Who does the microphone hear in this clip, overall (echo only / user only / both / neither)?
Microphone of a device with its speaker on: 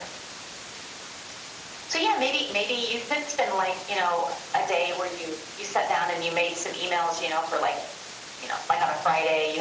echo only